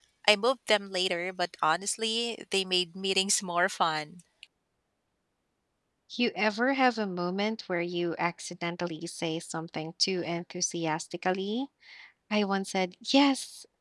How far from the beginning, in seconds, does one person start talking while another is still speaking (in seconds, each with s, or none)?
none